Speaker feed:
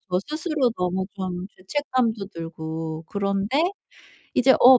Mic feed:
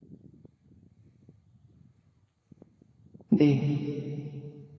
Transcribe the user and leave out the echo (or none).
네.